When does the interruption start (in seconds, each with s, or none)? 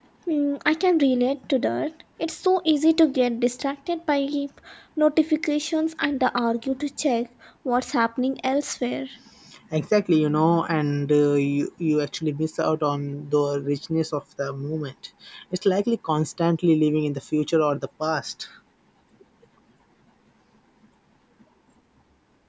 none